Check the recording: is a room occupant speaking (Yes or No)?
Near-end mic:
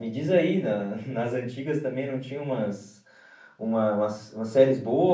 Yes